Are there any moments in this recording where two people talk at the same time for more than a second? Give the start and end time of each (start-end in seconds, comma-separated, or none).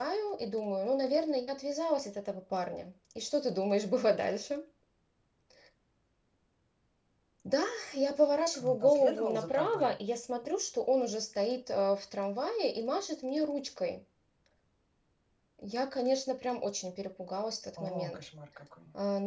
8.5-9.9